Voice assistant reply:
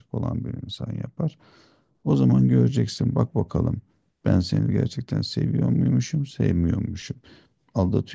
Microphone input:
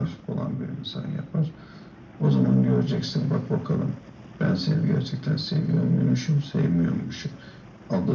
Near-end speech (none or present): none